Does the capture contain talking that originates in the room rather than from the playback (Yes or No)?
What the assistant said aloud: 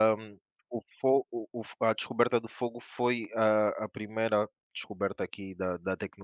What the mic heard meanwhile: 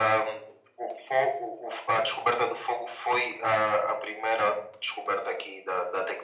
No